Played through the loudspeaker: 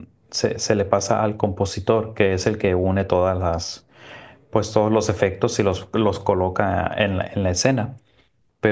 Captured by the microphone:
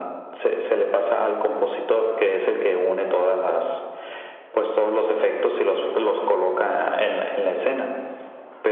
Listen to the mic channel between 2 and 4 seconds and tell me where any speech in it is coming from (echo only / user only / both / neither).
echo only